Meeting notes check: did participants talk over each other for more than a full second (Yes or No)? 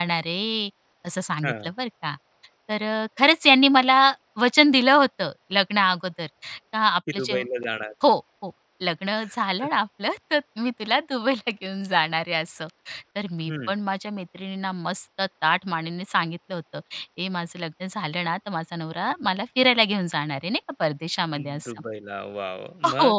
No